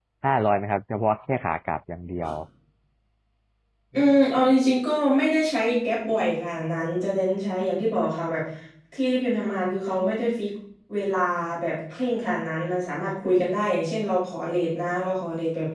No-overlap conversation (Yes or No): Yes